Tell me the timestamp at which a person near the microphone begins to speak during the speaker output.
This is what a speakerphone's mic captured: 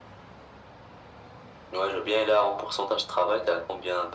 none

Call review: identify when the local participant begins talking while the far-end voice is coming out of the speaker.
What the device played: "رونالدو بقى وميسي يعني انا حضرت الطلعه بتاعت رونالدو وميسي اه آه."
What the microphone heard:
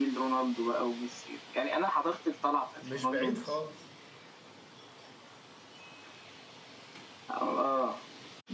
3 s

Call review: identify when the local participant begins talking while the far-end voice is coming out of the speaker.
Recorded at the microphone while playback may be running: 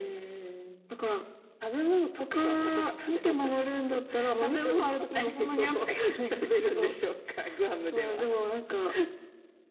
none

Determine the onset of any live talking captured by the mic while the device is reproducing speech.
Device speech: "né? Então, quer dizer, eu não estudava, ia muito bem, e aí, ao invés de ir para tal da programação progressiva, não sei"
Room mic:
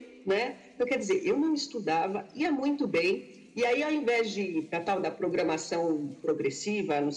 none

